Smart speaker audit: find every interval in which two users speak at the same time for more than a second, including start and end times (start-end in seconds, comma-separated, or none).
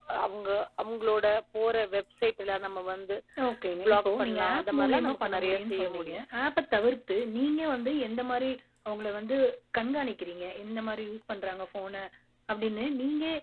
3.9-6.2